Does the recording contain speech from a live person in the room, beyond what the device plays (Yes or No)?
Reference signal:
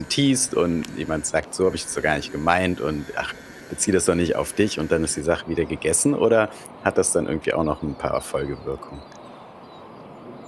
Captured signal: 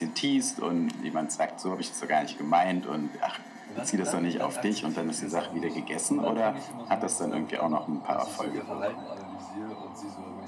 Yes